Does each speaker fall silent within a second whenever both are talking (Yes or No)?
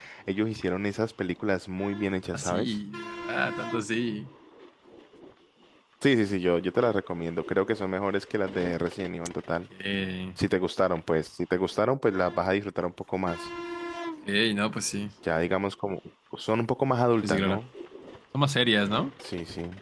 Yes